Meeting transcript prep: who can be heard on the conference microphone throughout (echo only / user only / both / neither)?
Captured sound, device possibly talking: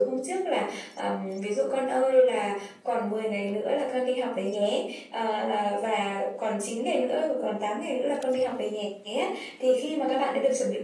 echo only